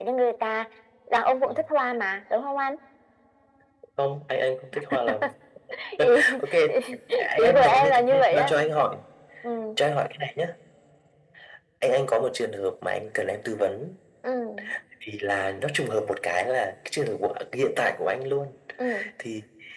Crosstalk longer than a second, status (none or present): present